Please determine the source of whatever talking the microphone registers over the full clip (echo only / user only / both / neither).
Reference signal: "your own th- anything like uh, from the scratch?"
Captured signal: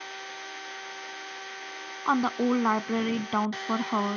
user only